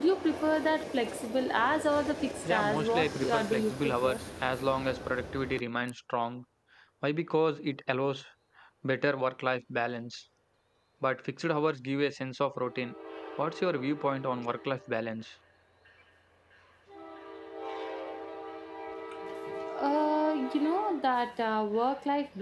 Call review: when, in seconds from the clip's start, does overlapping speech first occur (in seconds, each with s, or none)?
2.4 s